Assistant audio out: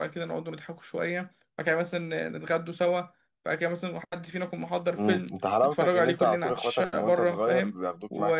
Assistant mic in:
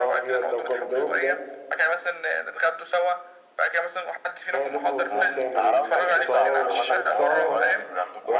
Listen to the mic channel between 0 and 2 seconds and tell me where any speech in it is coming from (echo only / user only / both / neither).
both